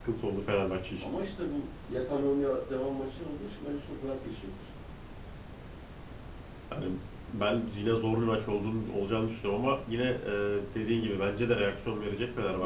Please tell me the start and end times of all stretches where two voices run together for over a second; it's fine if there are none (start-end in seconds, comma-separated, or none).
none